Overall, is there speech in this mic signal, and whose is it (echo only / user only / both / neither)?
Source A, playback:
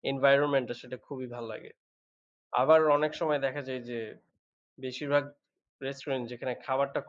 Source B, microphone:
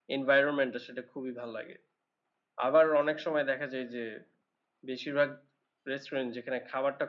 echo only